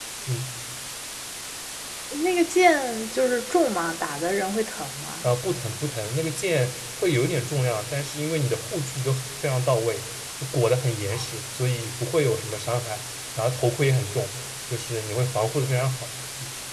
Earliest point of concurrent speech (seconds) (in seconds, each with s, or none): none